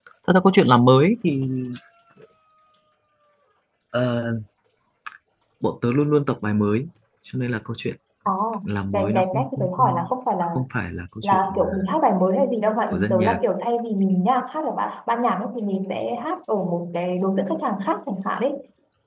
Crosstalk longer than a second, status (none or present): present